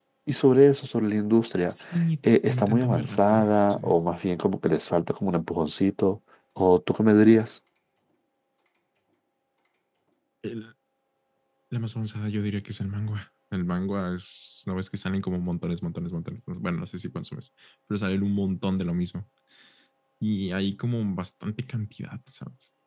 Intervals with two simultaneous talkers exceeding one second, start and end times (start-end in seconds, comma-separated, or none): 2.5-3.8